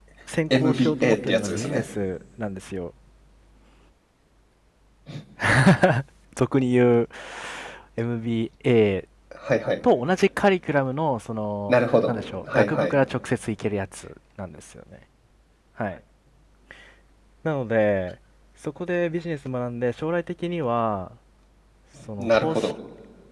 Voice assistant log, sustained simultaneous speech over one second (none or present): present